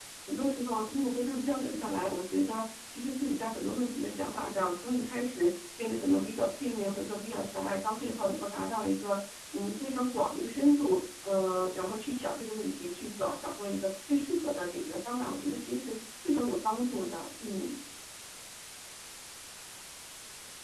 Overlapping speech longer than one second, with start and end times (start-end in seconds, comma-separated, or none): none